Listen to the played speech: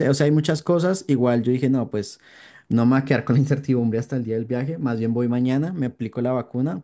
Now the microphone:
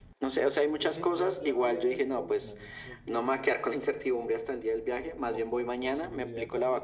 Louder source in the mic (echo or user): echo